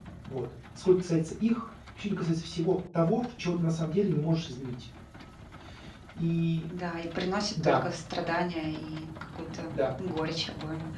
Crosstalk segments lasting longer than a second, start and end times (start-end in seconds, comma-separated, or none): none